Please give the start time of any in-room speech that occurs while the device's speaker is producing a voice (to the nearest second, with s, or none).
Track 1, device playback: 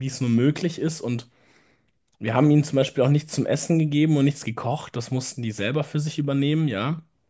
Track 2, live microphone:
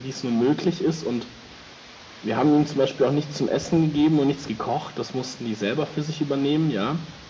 none